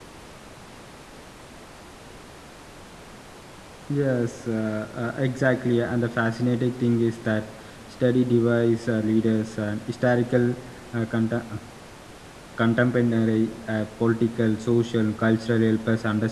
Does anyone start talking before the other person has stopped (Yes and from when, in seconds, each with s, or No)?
No